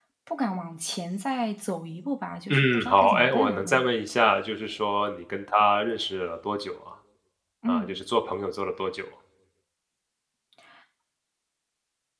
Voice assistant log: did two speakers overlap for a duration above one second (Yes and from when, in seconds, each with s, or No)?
Yes, from 2.5 s